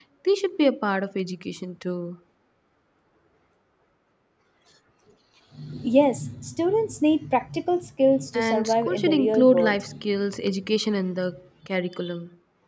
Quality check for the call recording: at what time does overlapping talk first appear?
8.3 s

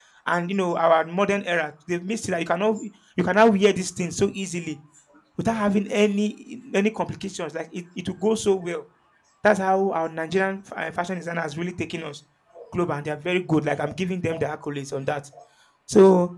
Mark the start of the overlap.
none

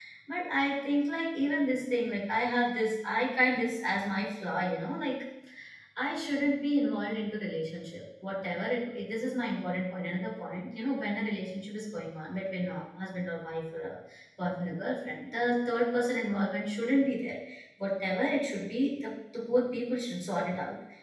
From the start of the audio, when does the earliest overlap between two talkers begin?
none

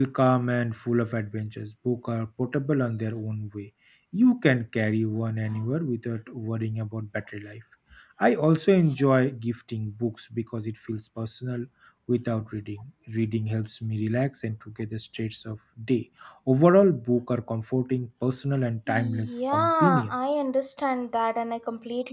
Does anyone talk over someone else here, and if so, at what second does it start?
18.9 s

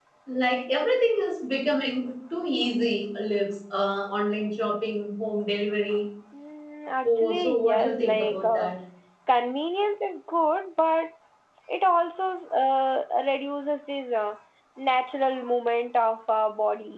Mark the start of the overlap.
7.0 s

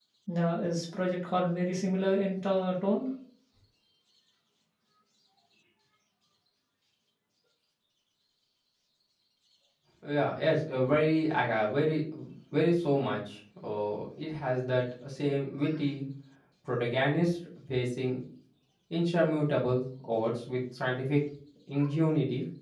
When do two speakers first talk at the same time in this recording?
none

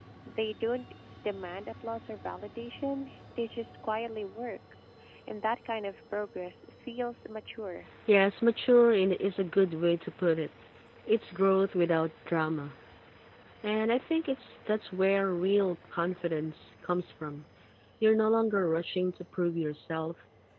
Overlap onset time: none

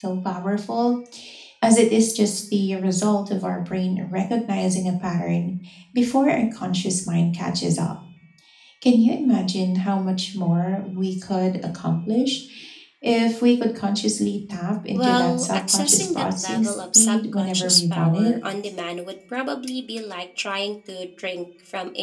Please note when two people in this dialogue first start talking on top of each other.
14.9 s

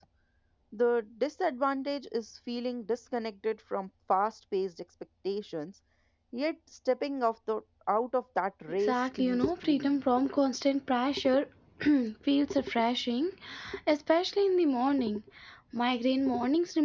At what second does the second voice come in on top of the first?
8.7 s

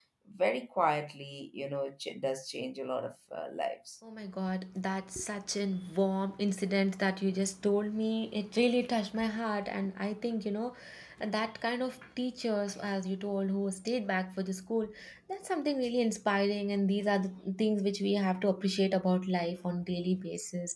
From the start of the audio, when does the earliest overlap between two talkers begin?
none

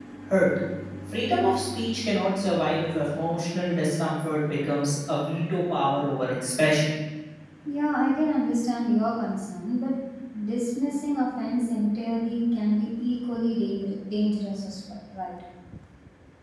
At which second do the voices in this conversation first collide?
none

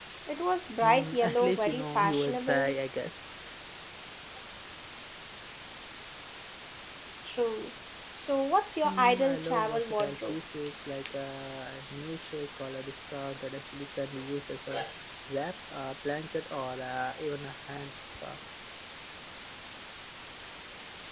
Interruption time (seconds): 0.8 s

